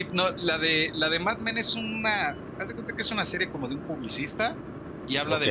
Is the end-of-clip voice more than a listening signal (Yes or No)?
No